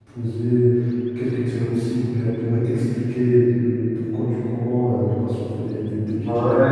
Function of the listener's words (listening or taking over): taking over